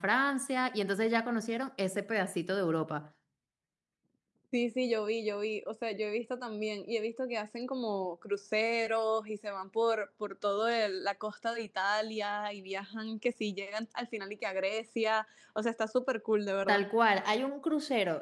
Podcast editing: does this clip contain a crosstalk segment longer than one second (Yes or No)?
No